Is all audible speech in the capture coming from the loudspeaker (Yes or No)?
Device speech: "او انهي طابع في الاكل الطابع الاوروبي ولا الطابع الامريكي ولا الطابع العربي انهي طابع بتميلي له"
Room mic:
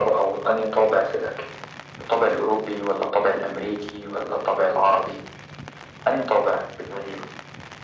Yes